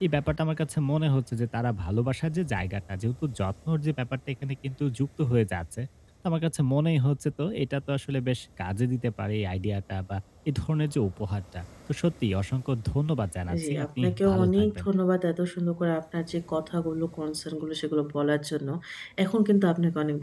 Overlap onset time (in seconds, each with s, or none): 13.5 s